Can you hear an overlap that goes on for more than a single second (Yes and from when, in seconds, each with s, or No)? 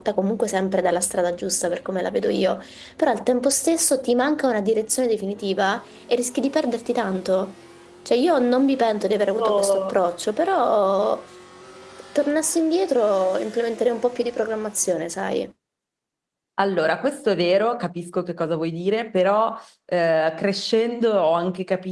No